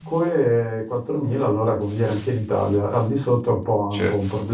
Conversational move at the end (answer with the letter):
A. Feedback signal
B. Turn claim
B